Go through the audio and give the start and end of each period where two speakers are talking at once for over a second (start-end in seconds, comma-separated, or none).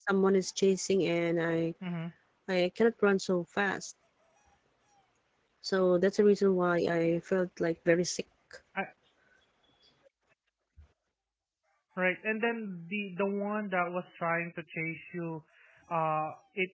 none